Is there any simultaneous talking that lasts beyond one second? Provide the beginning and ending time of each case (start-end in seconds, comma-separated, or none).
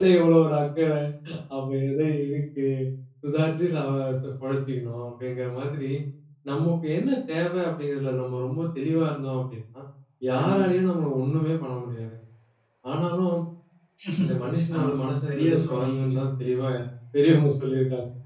14.8-16.1